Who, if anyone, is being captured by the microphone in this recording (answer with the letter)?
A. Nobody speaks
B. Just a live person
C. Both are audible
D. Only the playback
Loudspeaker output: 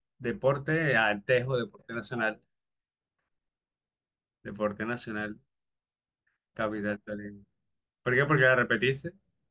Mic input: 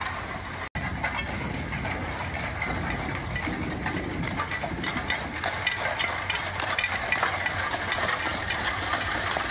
A